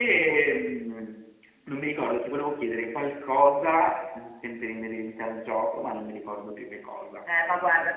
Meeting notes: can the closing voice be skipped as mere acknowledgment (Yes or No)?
No